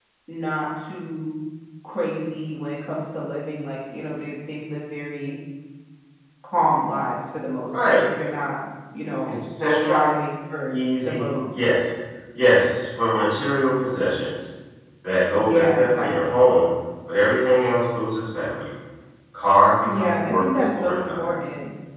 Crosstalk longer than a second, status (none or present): present